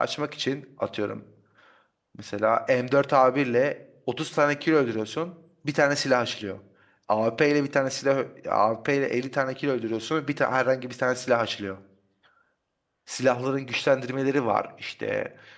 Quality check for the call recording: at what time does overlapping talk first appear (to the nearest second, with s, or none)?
none